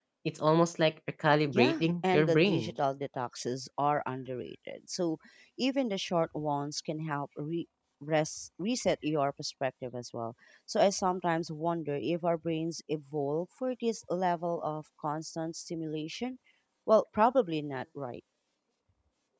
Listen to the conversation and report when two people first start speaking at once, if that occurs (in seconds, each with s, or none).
1.5 s